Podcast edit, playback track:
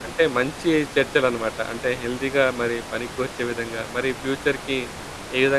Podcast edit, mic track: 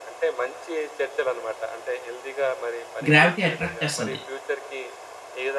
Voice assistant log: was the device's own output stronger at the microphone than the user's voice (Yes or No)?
No